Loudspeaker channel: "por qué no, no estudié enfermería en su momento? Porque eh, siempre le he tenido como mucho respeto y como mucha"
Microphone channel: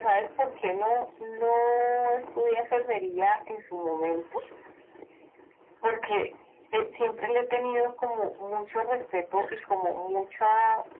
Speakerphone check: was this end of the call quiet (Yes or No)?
Yes